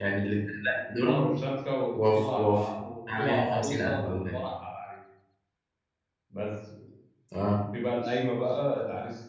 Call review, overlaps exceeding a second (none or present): present